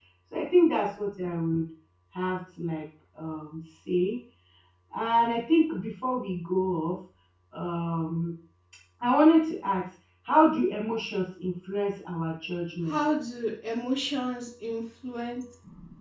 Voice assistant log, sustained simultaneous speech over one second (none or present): none